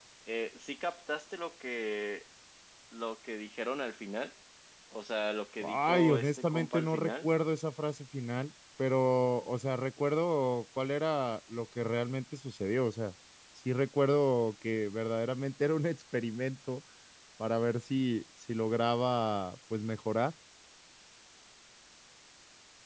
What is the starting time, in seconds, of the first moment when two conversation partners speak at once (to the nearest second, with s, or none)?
6 s